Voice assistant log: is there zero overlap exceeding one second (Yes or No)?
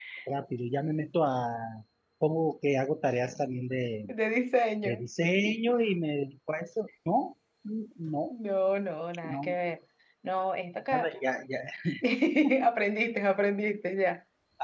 Yes